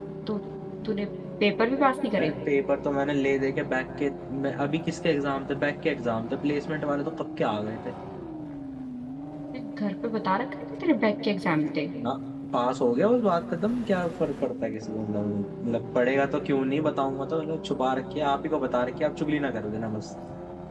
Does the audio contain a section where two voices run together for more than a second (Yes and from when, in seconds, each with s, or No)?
No